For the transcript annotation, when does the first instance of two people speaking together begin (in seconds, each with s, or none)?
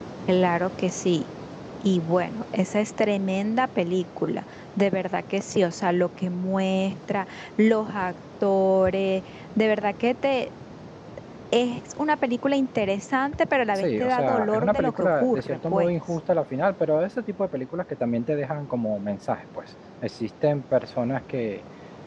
13.8 s